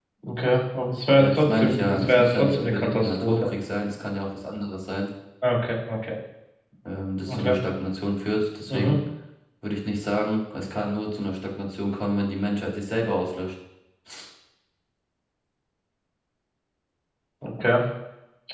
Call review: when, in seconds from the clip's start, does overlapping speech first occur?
1 s

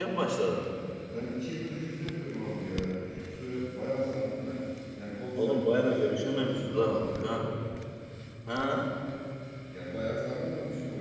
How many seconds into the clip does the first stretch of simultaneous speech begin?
5 s

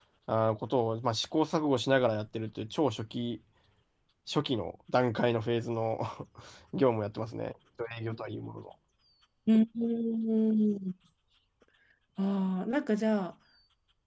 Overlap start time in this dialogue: none

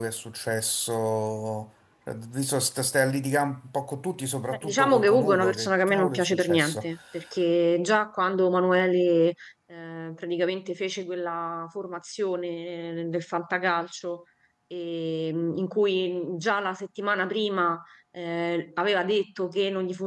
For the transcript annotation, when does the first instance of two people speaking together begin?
5 s

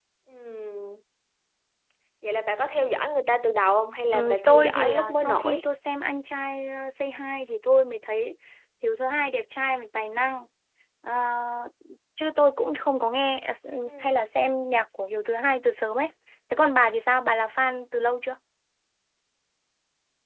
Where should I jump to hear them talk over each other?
4 s

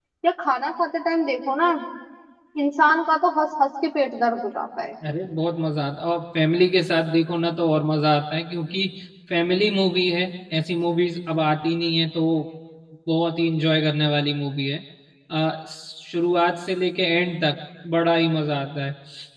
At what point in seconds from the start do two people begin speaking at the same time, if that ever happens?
none

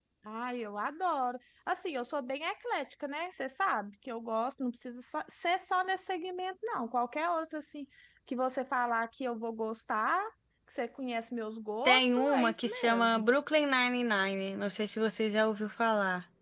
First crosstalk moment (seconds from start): 12 s

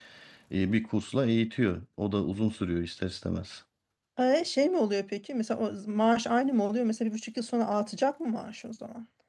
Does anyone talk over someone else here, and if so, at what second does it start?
none

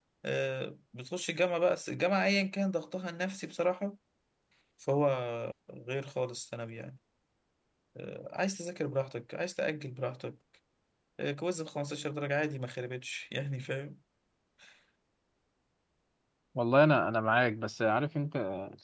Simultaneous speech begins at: none

